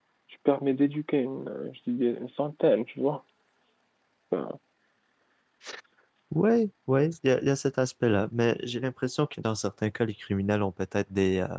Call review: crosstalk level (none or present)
none